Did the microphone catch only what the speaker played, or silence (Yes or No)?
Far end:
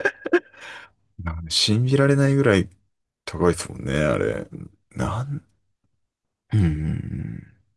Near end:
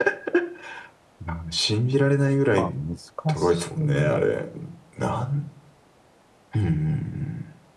No